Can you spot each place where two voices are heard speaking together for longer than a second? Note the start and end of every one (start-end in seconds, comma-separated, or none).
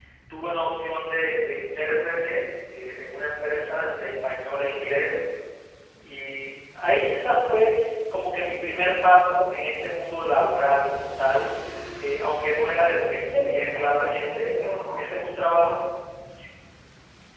13.1-14.5